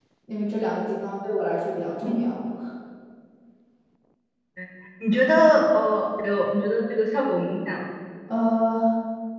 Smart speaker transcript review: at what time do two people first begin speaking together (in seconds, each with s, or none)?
none